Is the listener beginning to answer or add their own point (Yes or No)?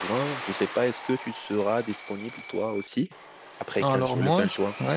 Yes